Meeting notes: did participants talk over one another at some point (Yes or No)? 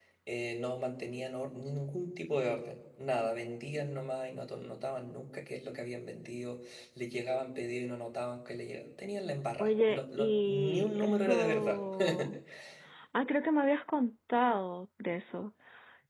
Yes